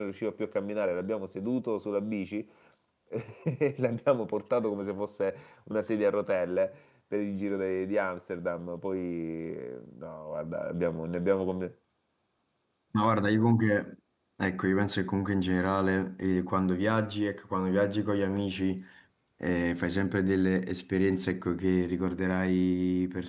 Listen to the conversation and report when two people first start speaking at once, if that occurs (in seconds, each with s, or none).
none